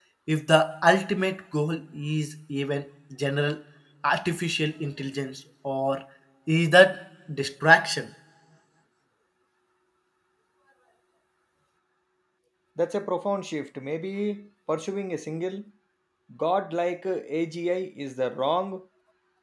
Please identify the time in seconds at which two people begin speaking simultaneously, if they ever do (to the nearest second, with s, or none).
none